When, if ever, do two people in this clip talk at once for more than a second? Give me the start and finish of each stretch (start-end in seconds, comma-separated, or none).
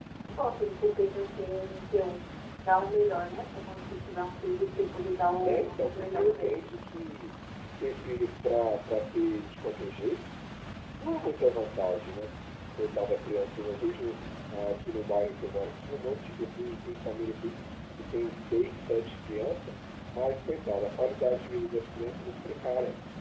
5.4-6.7